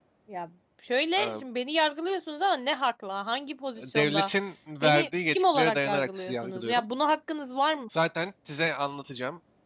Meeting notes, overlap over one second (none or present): present